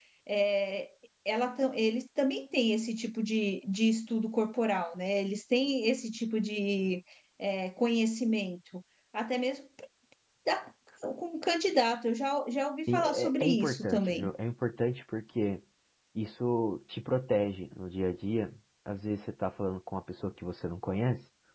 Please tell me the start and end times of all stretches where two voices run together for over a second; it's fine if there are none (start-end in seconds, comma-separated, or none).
12.9-14.3